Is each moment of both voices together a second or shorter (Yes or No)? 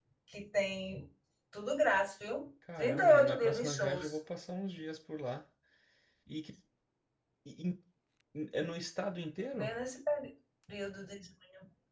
No